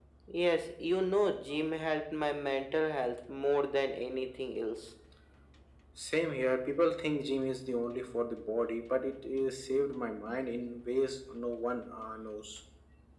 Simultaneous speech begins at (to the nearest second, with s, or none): none